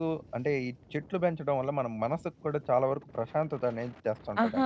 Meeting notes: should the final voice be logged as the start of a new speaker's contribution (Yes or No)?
Yes